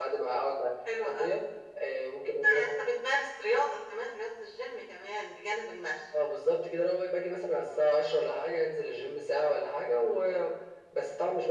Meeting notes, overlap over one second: none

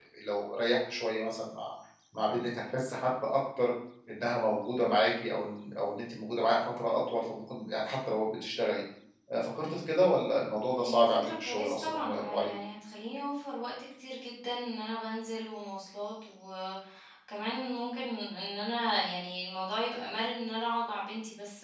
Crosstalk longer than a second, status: present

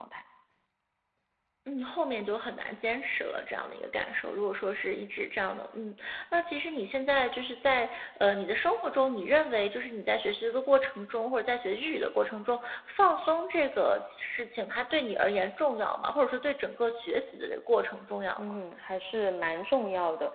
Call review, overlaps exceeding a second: none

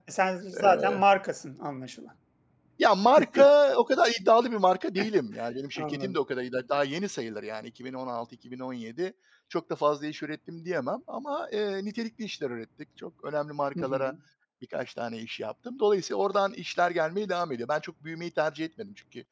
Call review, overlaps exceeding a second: none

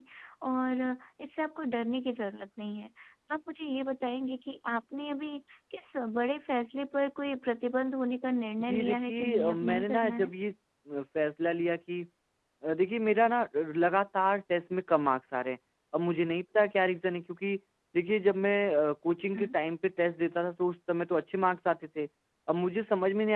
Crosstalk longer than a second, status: present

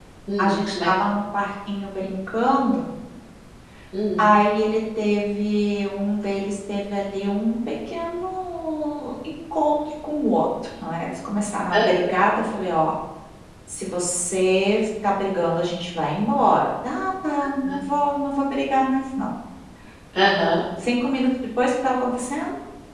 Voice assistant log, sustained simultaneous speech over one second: none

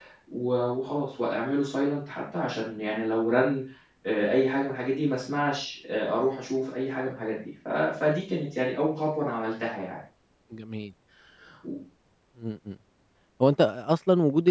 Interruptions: none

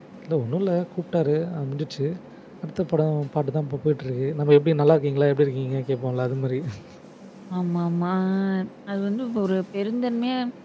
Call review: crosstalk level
none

